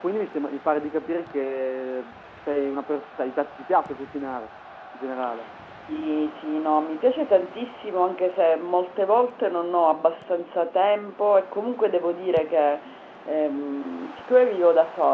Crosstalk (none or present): none